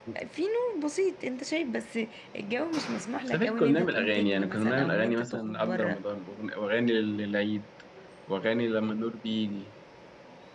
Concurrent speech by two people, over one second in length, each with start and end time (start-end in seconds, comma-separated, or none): 3.3-6.0